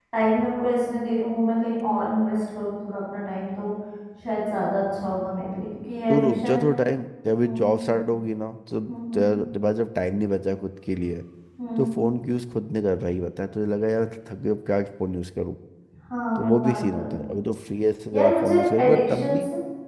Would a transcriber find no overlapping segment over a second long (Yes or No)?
No